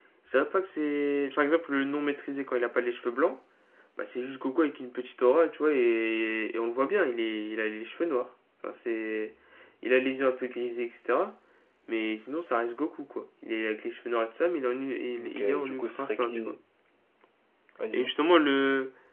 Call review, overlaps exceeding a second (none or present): present